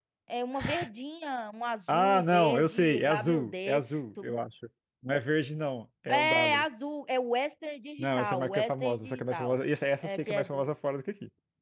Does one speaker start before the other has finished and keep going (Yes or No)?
Yes